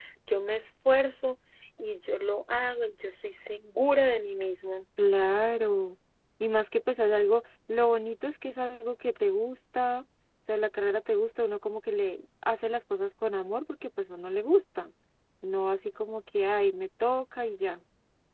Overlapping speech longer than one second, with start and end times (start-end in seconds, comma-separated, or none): none